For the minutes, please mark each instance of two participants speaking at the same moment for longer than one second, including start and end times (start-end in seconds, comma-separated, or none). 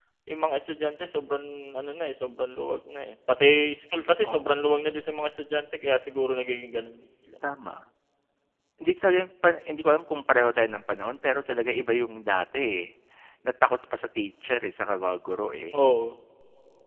none